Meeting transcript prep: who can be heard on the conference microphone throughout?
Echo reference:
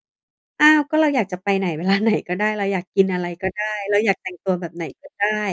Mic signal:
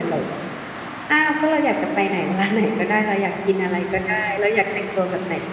echo only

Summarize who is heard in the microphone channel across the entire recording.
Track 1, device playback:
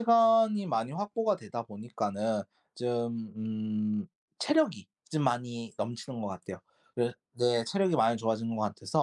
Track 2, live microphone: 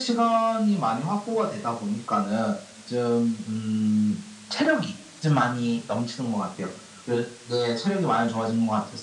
echo only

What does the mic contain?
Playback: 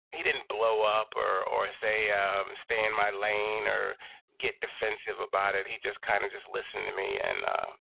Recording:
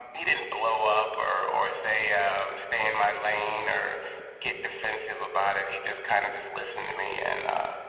echo only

